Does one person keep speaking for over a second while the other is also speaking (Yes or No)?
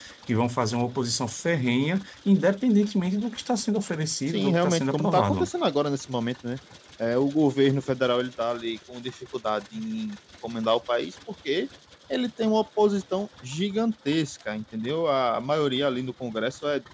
Yes